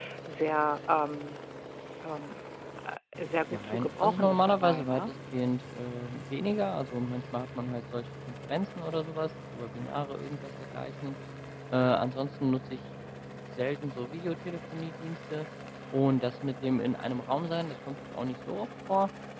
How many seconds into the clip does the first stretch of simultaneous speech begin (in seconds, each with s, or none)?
3.5 s